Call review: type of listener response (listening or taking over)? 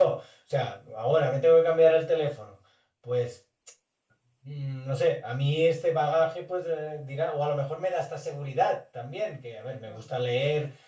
listening